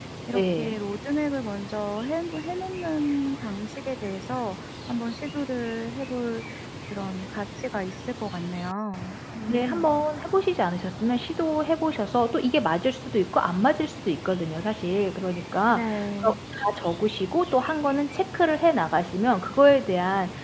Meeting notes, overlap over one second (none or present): none